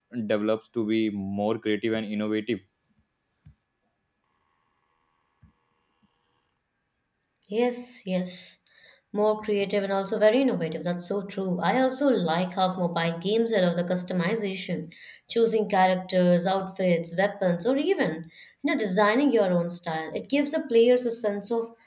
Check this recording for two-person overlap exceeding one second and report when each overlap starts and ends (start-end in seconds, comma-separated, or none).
none